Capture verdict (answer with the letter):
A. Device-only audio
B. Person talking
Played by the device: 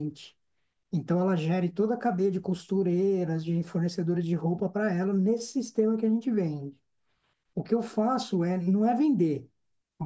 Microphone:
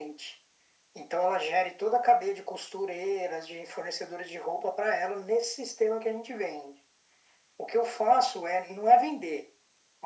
A